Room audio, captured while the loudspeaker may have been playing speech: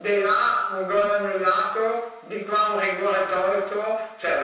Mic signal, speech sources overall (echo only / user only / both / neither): echo only